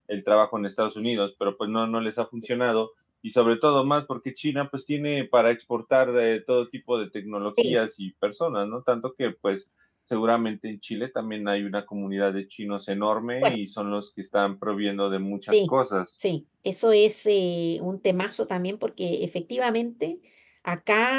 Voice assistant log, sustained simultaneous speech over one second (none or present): none